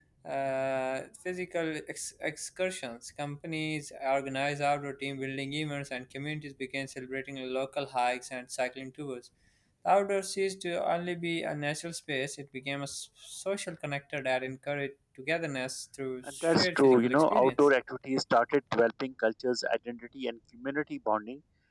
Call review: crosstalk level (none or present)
present